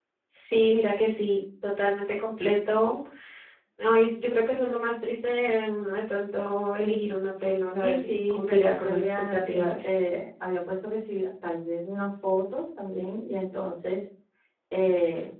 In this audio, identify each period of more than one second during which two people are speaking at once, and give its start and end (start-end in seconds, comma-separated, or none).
7.8-9.9